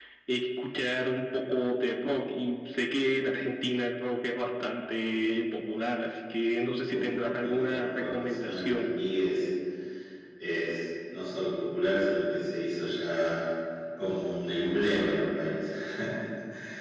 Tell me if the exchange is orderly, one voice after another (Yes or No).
No